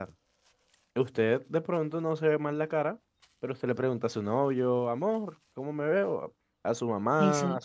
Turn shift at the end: No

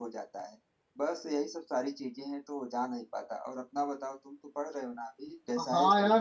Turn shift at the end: Yes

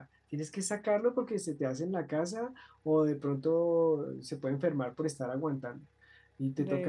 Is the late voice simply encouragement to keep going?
Yes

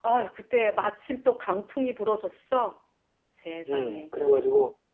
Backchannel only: No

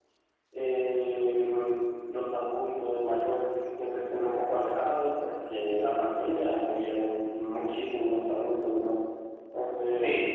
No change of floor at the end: No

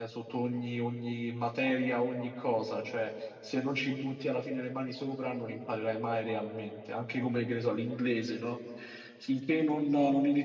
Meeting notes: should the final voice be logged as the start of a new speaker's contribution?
No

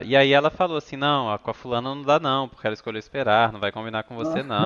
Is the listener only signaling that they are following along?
Yes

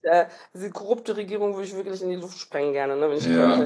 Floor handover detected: Yes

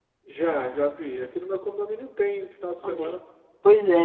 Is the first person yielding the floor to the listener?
Yes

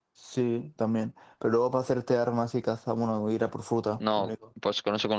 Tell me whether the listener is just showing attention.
No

